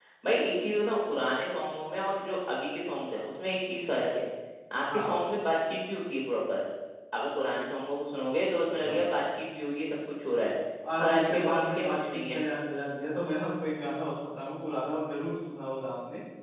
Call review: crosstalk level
present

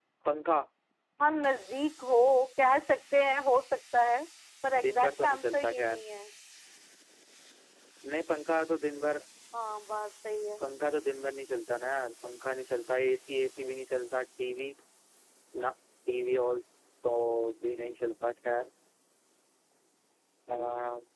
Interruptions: present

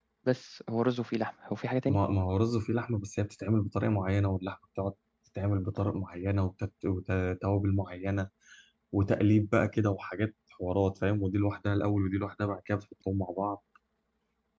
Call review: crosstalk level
none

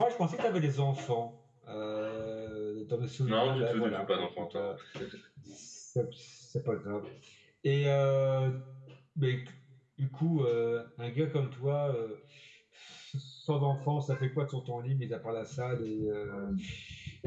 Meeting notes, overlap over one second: present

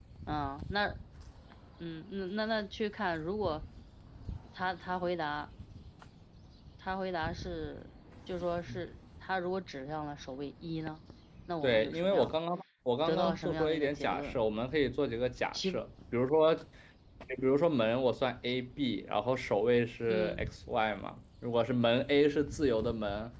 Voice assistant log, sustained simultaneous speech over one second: present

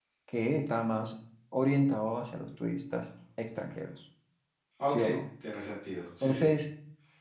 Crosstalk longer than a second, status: none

